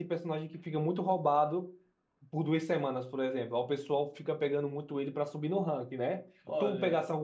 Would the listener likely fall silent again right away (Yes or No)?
Yes